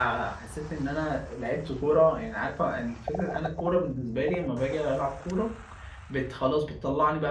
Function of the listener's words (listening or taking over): listening